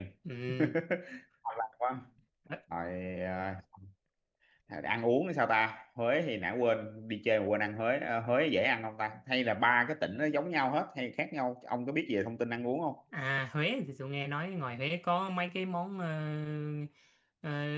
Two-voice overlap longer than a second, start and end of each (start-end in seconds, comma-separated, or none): none